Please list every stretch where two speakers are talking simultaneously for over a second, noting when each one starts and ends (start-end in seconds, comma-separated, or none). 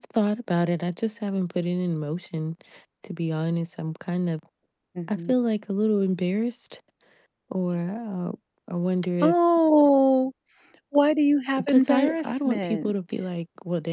11.6-12.9